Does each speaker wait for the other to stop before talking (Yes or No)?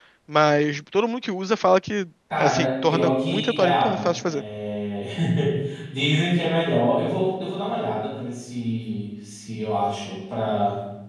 No